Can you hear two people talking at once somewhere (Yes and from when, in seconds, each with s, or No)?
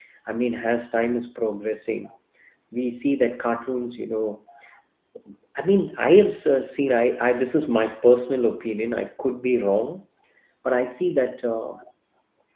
No